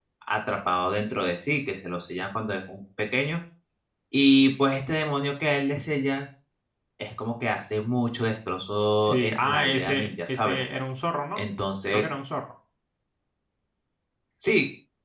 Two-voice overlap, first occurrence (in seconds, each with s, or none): 9.0 s